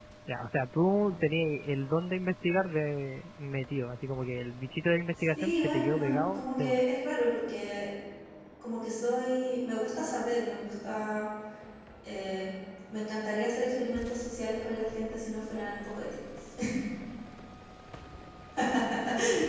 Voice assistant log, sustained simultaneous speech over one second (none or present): present